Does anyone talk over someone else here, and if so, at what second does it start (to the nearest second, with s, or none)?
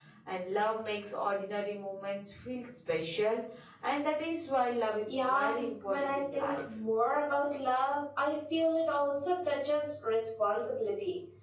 5 s